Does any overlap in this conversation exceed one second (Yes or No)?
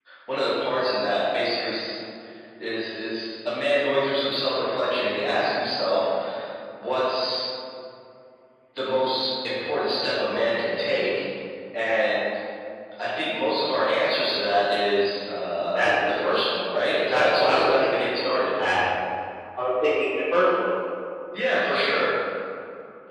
Yes